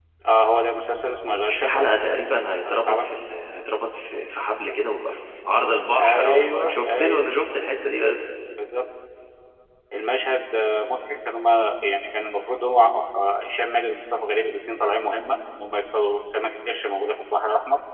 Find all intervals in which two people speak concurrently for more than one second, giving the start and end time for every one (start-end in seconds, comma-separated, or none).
5.9-7.2